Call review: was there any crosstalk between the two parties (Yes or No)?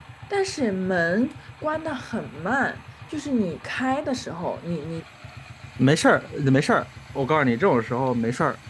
No